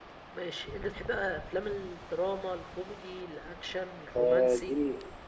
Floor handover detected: Yes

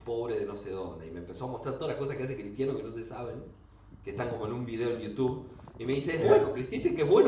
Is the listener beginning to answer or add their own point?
No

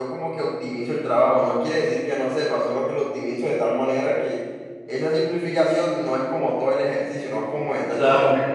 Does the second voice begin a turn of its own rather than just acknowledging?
Yes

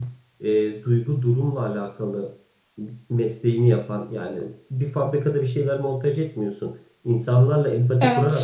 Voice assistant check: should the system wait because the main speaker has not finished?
Yes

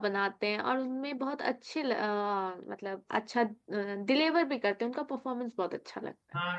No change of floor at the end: No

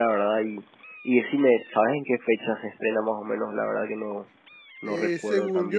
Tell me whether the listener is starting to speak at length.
Yes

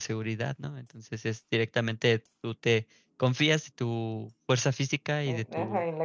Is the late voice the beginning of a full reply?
Yes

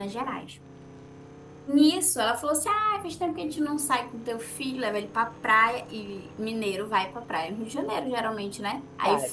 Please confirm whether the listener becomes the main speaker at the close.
No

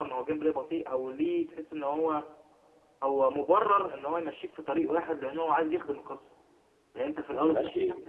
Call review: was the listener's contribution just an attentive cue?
No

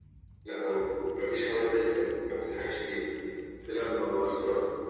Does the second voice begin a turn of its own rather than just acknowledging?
No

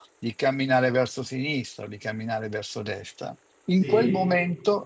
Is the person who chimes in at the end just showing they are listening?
Yes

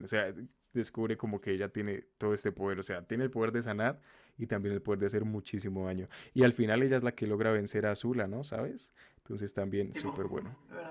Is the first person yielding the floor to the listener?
Yes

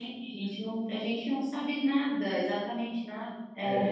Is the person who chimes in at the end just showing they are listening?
No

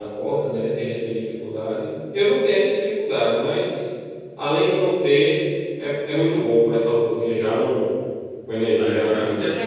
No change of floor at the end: No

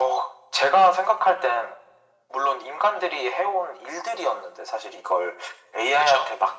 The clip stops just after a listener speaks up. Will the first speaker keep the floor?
Yes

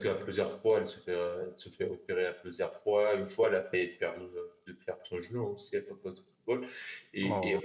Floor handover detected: No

